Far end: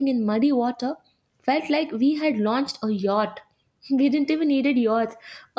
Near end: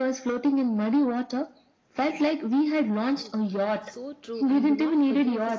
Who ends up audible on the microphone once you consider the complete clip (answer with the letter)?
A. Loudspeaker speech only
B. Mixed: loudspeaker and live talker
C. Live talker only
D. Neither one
B